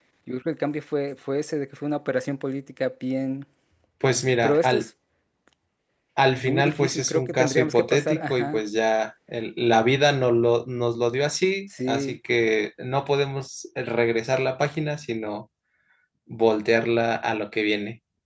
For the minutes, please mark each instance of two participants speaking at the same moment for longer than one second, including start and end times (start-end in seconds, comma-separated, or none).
6.4-8.6